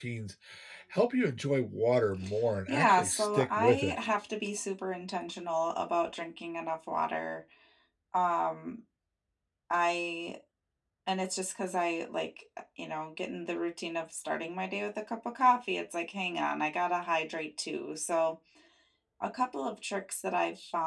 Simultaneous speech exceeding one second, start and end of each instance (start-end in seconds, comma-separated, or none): 2.7-4.0